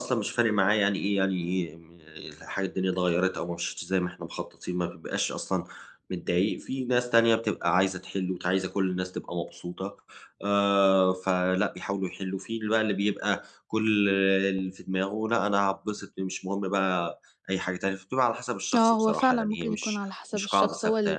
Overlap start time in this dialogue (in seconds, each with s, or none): 18.7 s